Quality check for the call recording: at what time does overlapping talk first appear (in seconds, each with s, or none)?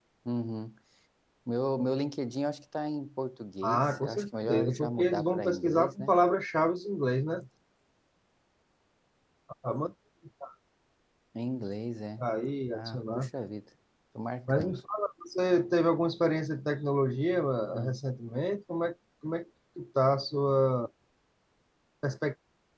3.6 s